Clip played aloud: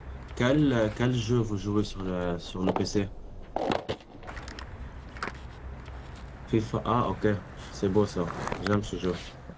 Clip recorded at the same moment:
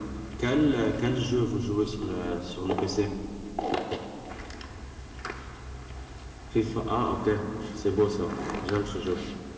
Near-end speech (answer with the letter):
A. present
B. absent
B